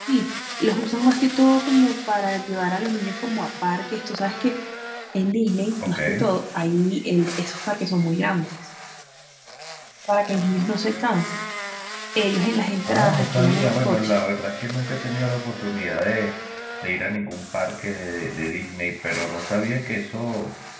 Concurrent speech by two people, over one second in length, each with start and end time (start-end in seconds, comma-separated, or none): 12.9-14.1